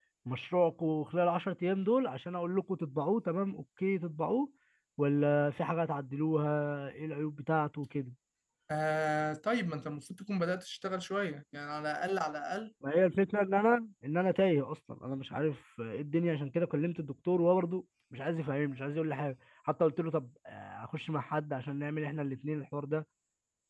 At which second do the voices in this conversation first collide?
none

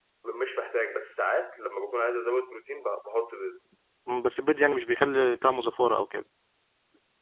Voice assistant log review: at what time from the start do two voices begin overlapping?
none

